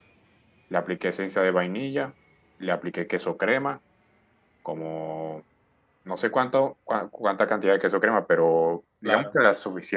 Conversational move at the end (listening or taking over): listening